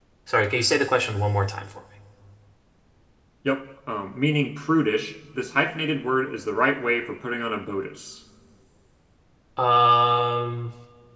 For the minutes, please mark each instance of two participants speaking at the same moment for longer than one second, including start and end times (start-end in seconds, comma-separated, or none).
none